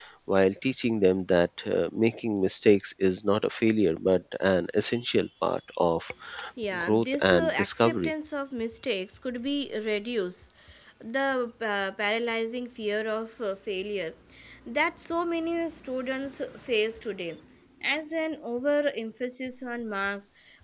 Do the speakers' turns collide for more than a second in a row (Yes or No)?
Yes